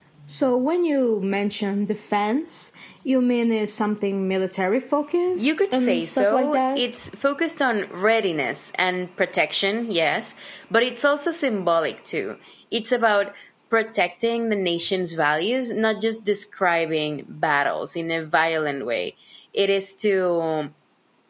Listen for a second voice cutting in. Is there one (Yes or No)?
Yes